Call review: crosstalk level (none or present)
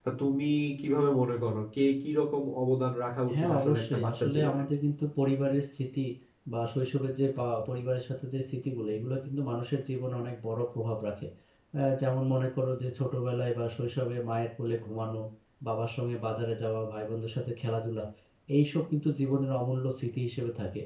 present